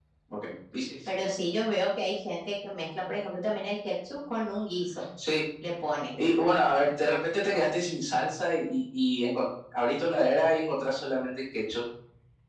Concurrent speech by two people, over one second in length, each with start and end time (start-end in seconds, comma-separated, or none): none